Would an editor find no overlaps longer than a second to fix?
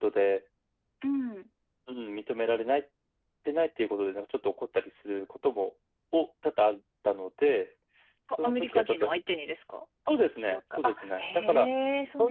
No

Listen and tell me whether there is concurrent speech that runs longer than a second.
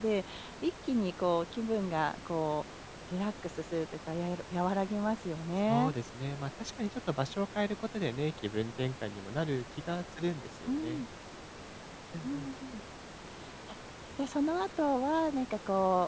No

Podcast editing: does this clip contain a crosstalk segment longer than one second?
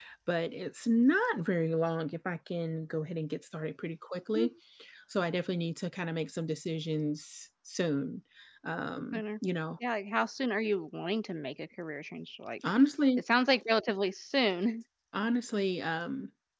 No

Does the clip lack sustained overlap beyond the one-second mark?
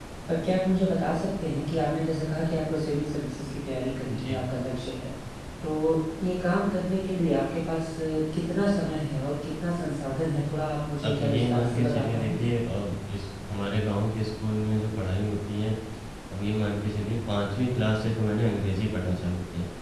No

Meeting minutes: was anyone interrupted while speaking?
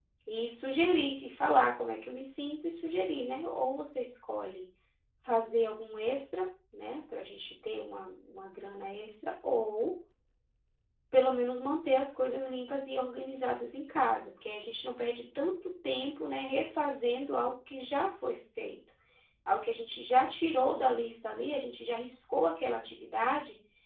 No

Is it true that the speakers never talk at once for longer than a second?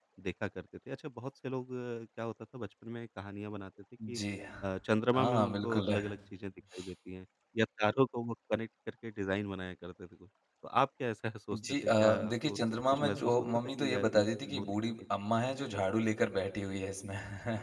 No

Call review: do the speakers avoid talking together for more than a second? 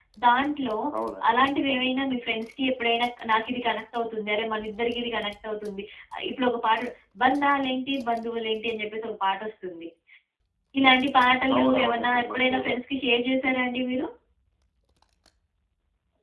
No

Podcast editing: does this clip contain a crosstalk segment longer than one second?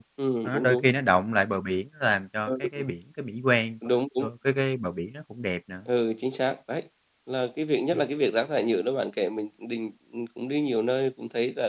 No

